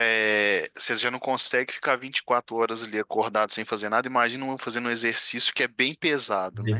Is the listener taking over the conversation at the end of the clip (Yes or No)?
No